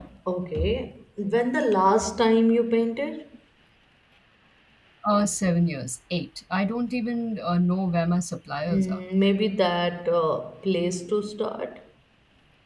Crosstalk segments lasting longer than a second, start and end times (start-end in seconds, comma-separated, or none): none